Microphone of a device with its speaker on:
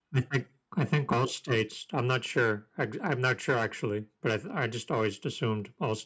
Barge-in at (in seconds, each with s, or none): none